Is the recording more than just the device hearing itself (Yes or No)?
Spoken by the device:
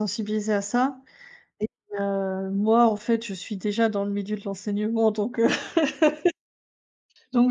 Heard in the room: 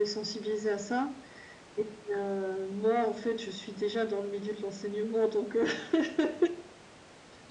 No